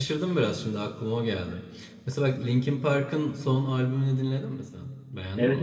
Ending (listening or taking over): taking over